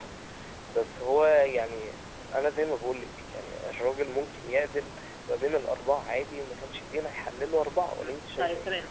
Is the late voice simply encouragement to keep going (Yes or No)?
No